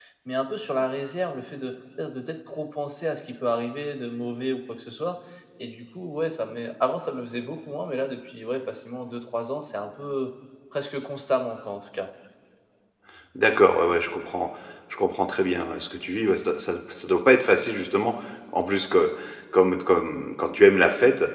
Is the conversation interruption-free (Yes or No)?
Yes